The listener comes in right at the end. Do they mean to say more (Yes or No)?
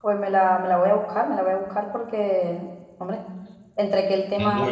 No